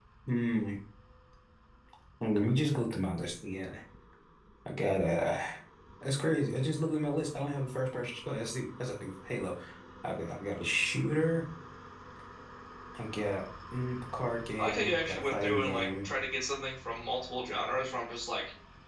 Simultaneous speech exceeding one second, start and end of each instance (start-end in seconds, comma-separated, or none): 14.6-16.1